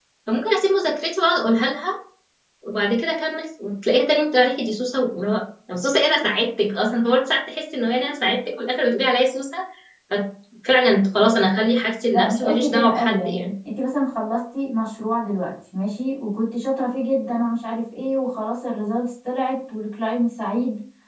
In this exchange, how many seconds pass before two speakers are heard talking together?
12.1 s

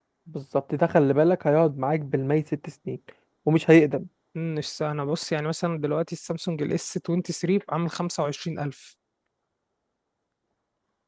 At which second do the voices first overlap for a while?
none

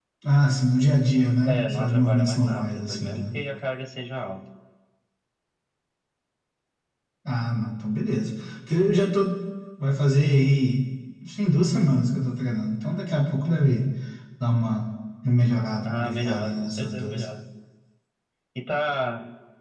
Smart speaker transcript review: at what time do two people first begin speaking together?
1.4 s

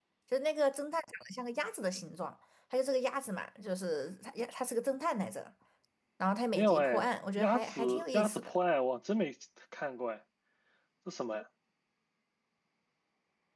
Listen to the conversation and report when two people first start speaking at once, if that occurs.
6.6 s

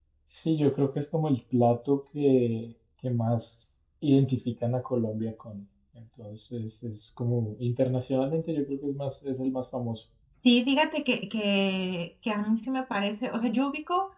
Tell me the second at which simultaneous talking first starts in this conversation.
none

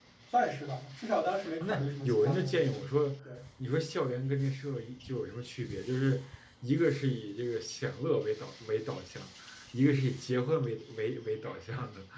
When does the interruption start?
1.6 s

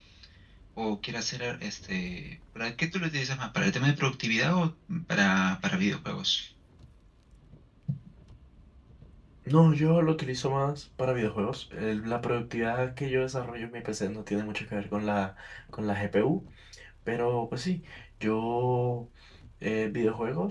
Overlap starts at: none

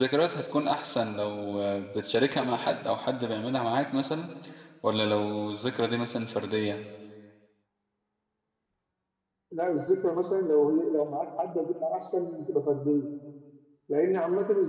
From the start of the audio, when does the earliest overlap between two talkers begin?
none

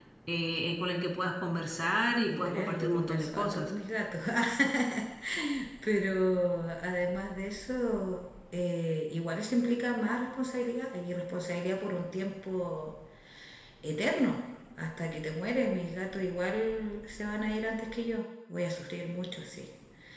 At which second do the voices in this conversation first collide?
2.3 s

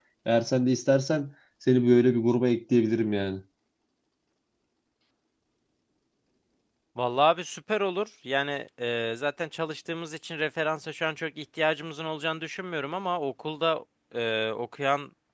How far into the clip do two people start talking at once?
none

